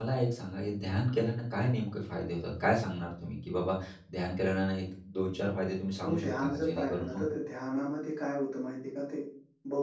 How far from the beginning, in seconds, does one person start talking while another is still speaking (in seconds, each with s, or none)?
6.0 s